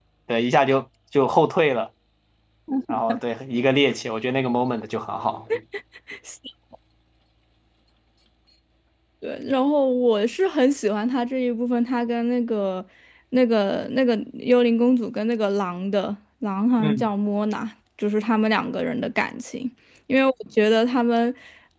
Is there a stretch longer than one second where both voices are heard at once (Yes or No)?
No